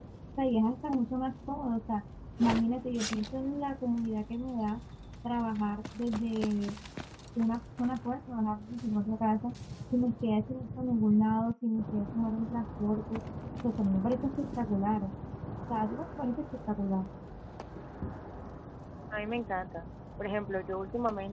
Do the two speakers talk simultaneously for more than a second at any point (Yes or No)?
No